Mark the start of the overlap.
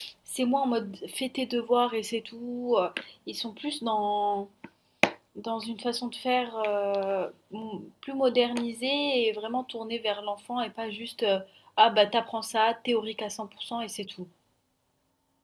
none

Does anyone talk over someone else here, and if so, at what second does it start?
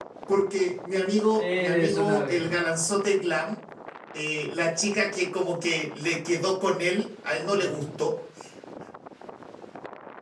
1.4 s

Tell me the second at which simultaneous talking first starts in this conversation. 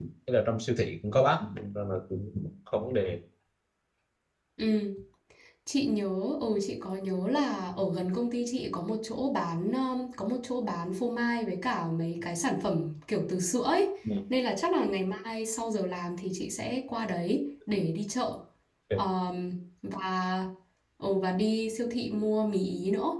none

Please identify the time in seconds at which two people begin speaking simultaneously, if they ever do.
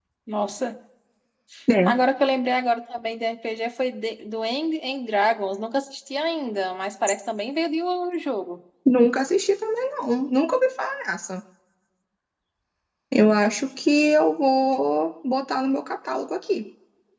none

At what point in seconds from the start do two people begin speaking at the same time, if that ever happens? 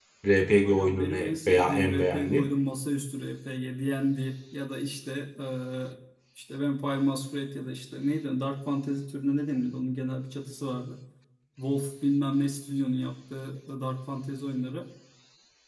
0.6 s

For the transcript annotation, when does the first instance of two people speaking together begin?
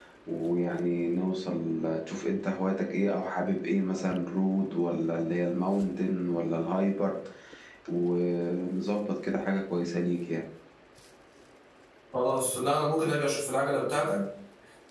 none

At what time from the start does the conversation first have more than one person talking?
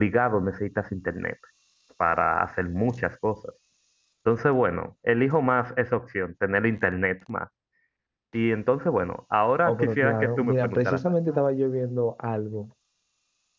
9.7 s

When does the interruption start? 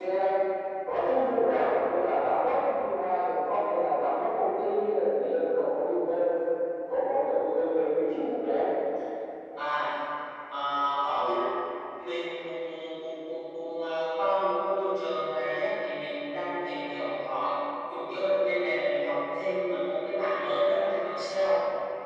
none

